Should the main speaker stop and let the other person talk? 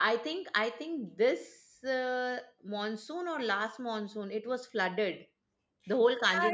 Yes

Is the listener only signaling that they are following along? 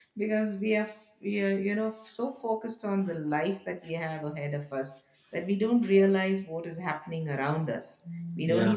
Yes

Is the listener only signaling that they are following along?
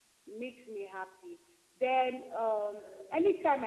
Yes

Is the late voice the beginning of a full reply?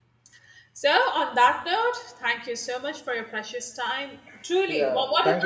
Yes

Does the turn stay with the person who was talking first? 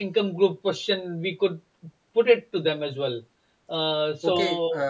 No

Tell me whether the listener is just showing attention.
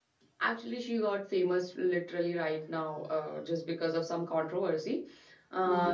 No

